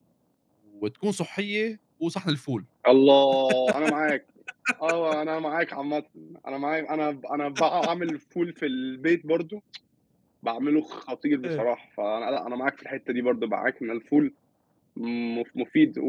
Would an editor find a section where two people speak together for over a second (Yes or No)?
No